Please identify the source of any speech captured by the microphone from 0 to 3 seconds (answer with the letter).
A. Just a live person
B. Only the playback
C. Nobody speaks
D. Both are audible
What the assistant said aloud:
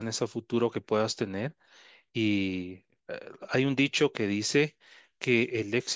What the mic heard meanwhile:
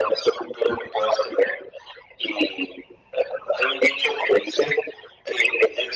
B